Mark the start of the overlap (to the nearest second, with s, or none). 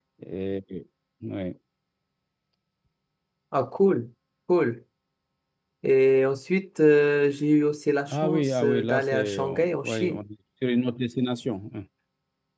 8 s